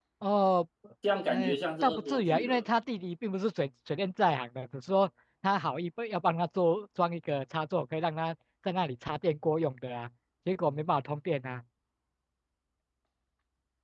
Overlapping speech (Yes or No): Yes